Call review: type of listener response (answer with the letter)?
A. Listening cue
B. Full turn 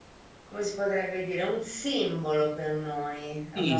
B